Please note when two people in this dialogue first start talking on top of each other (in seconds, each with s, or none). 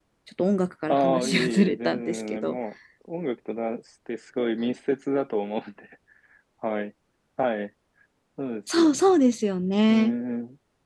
0.9 s